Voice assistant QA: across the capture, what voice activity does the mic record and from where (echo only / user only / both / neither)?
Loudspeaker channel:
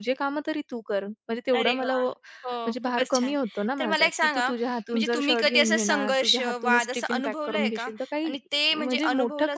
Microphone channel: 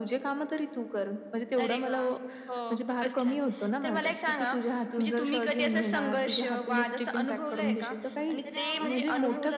both